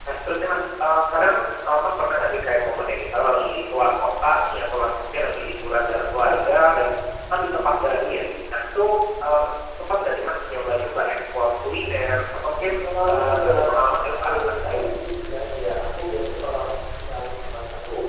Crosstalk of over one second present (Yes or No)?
Yes